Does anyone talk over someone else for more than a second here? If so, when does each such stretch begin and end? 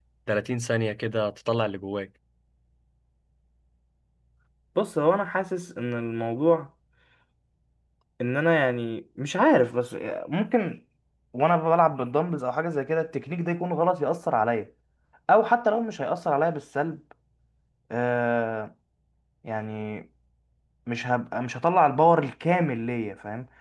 none

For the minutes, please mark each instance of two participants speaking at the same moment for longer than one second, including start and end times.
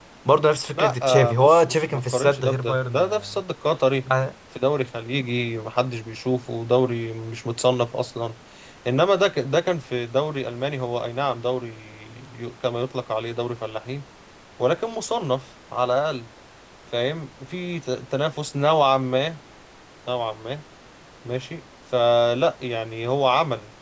0.8-3.4

